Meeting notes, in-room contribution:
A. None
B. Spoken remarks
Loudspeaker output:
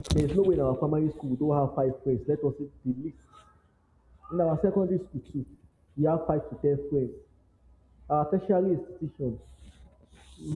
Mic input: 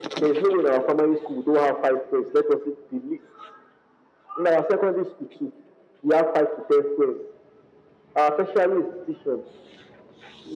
A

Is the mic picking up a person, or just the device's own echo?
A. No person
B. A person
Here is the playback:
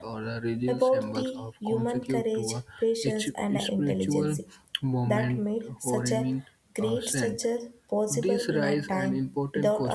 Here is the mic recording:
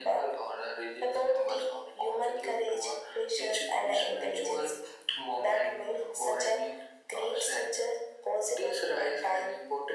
A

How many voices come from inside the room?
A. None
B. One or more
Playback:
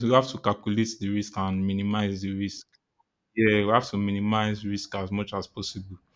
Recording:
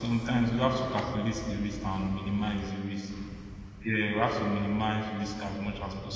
A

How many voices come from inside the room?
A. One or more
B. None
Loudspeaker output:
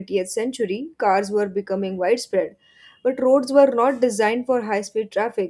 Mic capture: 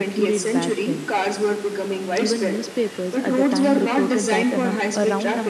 A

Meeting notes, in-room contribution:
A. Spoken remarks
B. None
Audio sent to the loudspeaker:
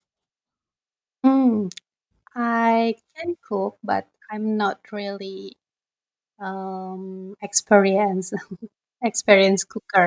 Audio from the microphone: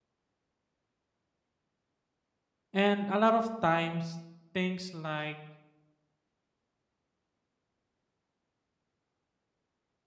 A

